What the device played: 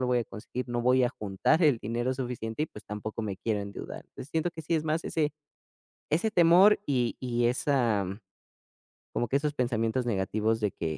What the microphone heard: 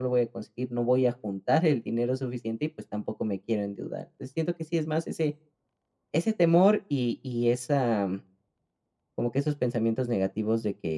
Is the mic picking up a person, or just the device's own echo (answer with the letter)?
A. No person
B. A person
A